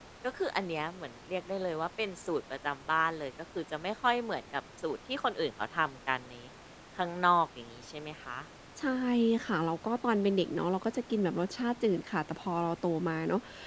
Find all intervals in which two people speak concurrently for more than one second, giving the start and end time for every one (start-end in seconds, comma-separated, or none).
none